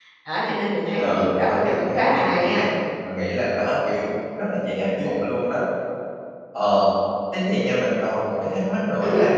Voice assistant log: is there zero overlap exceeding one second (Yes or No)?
No